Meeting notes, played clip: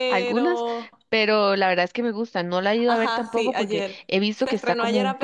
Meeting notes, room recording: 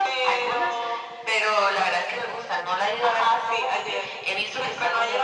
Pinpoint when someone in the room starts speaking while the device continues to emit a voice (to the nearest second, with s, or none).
none